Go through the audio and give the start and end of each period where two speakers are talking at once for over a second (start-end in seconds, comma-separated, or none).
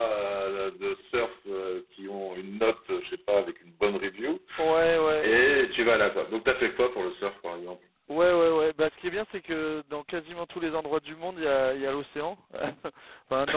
none